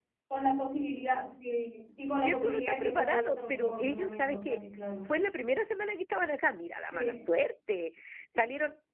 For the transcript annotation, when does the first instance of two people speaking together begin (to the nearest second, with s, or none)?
2 s